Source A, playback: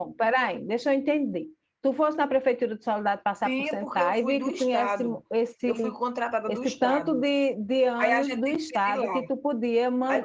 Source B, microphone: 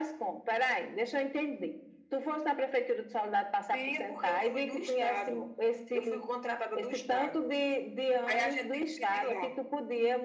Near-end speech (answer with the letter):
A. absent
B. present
A